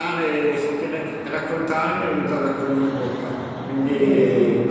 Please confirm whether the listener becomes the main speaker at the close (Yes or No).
Yes